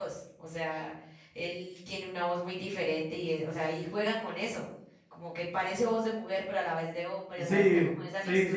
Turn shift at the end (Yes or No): Yes